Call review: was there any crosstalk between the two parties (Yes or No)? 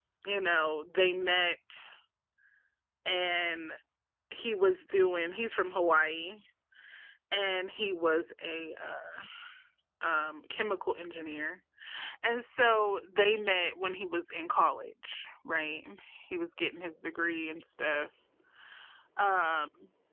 No